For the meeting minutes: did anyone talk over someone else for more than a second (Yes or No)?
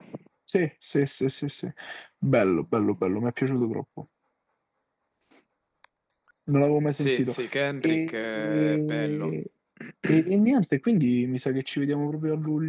Yes